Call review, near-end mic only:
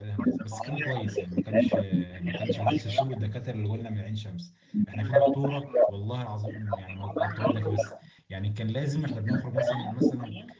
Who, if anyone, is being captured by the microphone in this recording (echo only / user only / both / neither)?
both